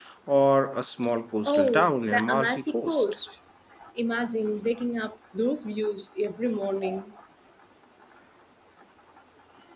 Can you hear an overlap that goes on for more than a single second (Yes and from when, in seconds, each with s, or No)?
Yes, from 1.4 s